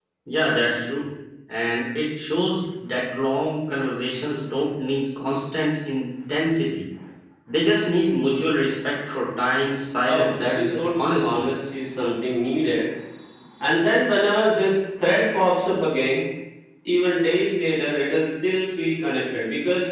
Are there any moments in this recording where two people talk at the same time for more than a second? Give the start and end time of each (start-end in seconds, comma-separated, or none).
10.0-11.4